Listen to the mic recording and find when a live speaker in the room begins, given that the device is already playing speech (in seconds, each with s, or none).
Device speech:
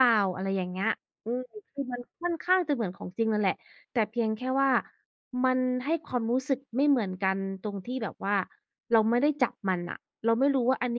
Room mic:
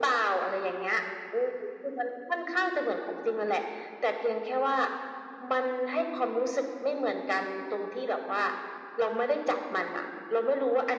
none